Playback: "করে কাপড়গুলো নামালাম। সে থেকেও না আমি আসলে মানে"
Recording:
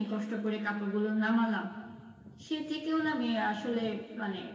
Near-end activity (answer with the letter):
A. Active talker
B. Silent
B